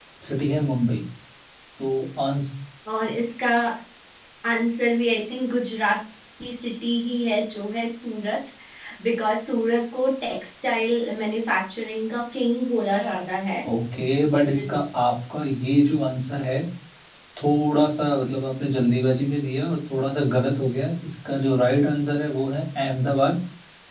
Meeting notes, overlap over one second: none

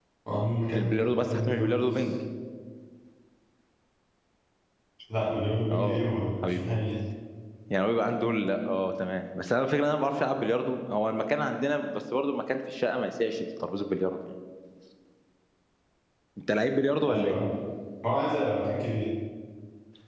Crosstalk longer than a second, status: present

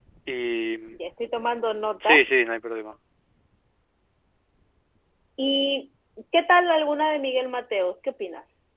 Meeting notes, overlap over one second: none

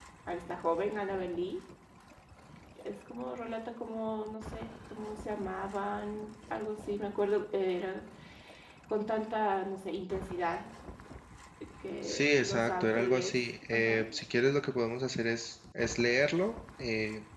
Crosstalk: present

